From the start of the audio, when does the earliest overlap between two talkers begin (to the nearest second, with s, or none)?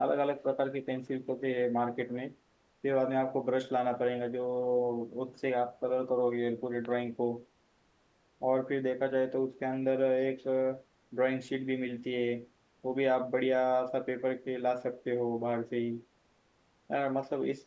none